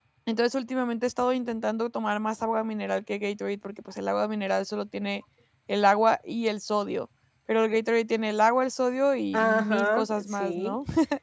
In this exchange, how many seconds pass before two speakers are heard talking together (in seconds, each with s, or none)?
9.3 s